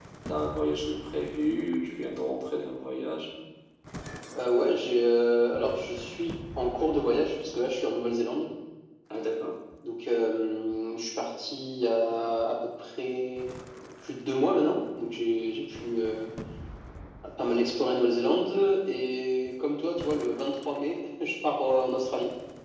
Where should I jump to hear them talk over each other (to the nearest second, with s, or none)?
none